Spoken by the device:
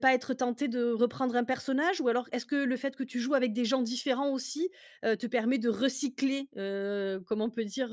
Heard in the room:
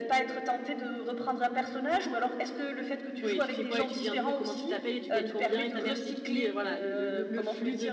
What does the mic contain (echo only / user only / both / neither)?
both